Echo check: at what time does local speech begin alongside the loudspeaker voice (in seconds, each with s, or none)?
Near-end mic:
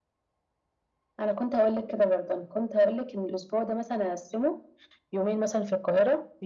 none